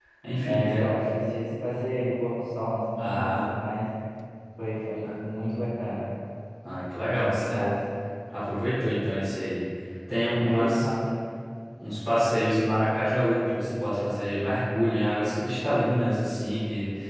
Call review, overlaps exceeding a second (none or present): none